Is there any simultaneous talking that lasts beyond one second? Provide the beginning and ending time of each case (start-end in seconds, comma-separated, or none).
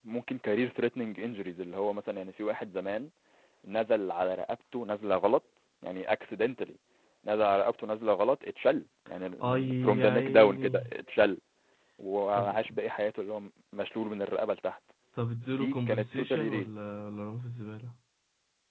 9.4-10.7, 15.5-16.7